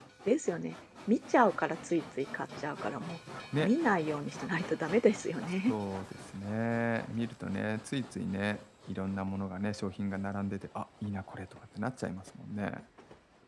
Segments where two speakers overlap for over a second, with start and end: none

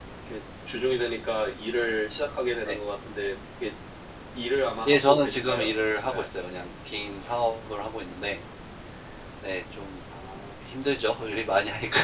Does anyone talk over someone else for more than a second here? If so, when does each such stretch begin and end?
4.9-6.3

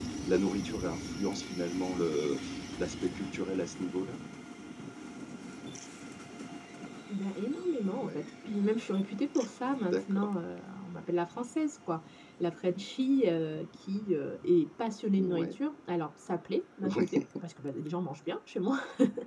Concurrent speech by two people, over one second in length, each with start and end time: none

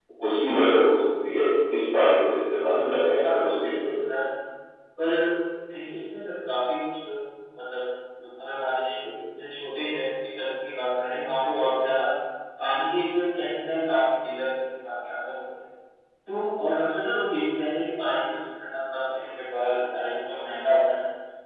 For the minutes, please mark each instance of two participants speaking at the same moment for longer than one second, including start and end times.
2.7-3.9

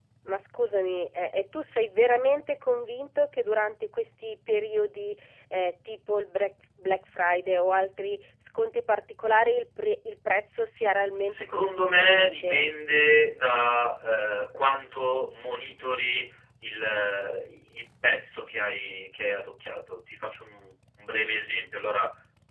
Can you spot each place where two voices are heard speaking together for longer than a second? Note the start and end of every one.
11.3-12.7

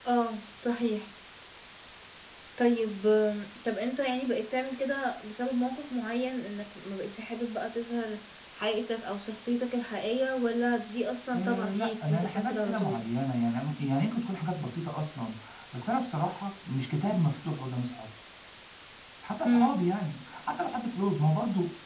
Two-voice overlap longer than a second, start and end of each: 11.3-13.0

